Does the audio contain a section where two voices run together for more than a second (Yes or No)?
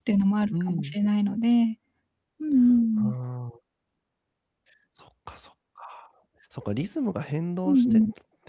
No